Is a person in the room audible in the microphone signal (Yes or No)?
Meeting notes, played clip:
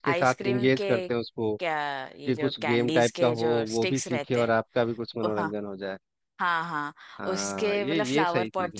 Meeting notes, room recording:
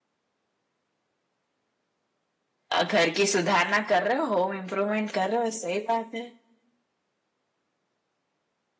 Yes